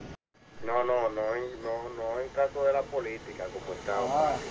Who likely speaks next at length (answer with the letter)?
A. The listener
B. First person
B